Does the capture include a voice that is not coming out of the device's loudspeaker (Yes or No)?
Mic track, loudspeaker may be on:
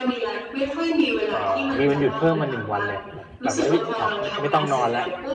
Yes